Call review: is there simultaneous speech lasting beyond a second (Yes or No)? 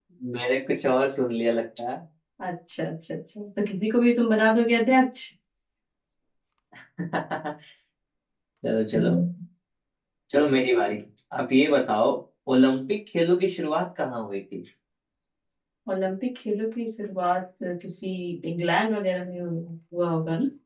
No